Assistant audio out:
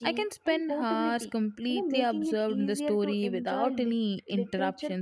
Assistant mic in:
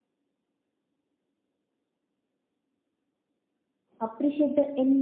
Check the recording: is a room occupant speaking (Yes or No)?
Yes